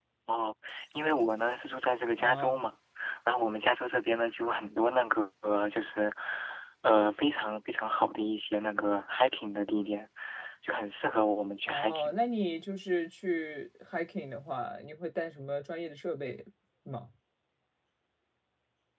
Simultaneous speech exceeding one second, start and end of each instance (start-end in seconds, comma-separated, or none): none